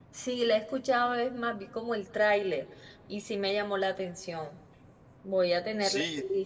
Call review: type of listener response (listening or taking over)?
taking over